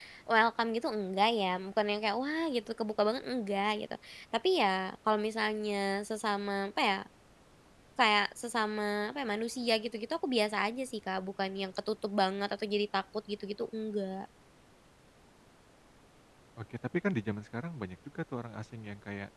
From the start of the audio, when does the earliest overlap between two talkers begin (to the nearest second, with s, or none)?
none